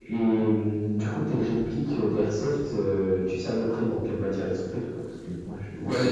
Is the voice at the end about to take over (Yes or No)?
Yes